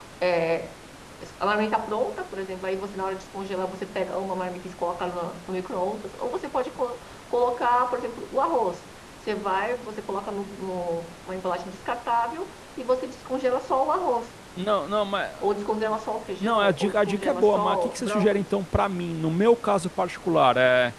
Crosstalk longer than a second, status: present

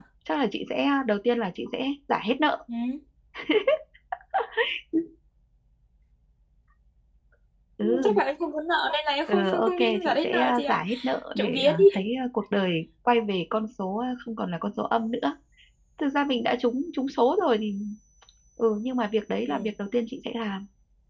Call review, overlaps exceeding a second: present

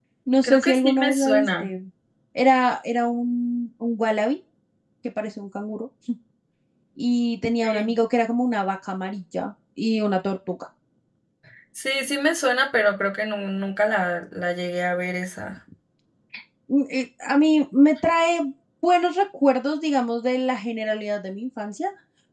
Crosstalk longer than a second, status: present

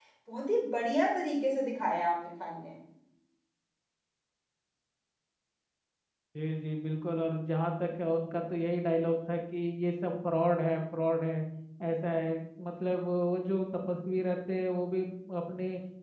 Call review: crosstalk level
none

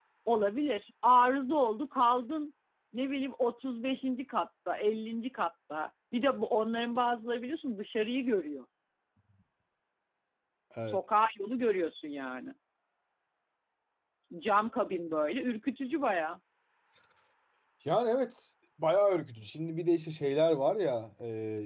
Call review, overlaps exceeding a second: none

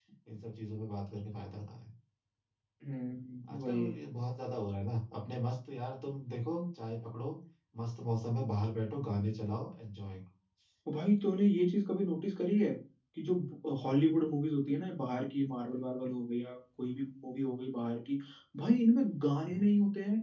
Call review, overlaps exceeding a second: none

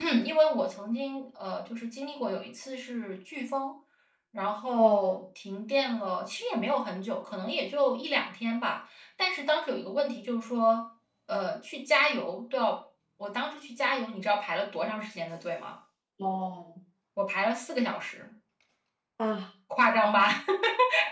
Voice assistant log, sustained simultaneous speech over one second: none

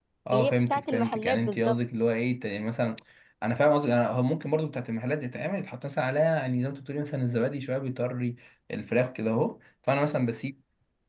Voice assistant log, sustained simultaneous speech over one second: present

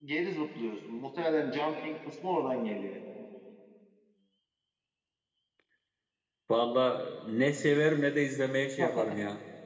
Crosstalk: none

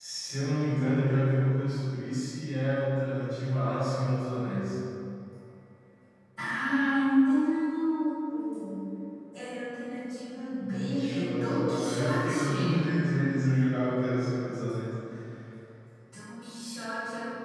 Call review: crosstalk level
present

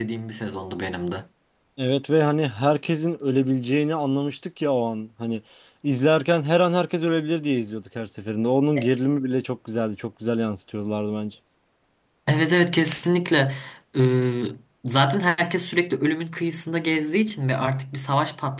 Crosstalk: none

